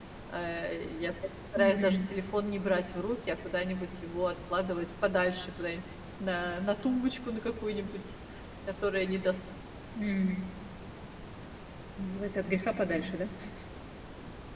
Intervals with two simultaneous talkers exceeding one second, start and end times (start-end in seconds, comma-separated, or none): none